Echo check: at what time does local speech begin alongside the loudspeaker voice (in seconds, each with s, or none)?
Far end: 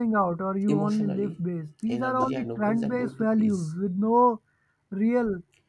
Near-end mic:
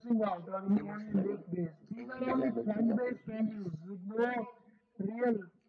none